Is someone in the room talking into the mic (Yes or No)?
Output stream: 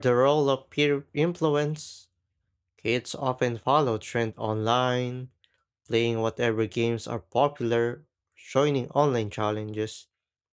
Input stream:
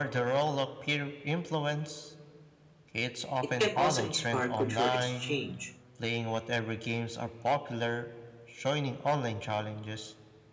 Yes